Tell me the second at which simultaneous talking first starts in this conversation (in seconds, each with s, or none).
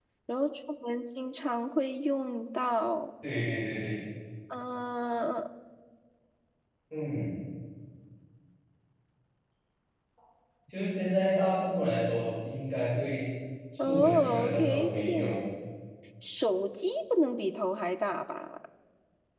13.8 s